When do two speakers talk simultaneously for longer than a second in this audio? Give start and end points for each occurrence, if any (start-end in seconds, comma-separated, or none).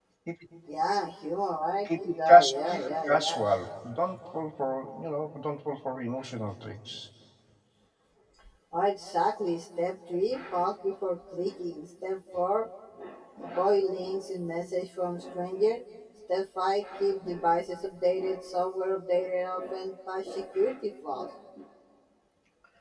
1.9-3.4